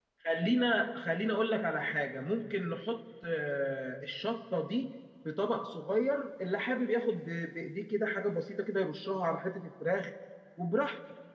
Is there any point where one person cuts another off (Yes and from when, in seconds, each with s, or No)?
No